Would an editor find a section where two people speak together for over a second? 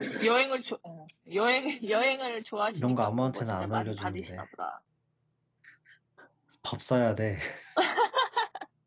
Yes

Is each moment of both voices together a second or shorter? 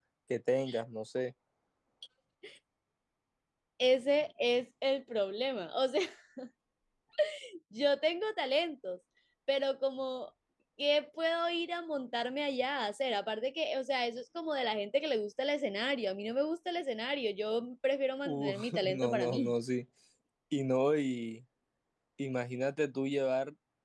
No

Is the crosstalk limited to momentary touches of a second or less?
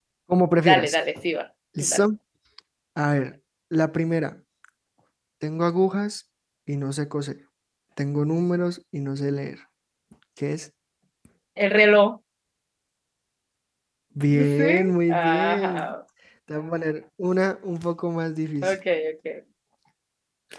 No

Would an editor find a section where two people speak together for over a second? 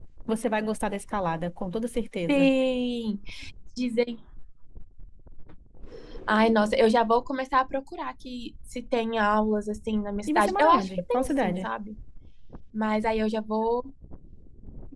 Yes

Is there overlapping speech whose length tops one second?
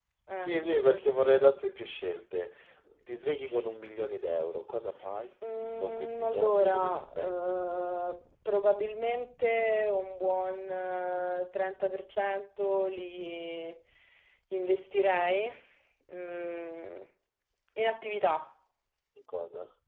Yes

